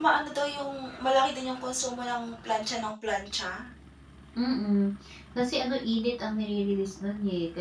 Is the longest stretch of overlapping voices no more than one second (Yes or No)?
Yes